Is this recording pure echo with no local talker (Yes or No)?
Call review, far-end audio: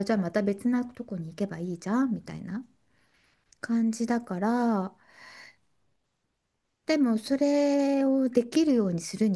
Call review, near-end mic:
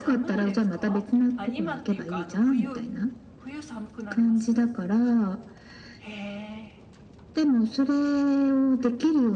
No